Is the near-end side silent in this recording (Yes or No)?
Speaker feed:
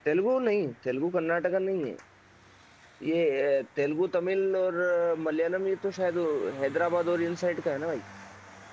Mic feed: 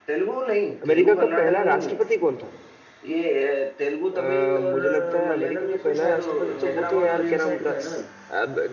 No